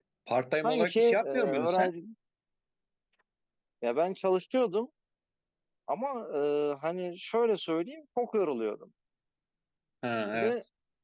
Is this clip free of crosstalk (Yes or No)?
No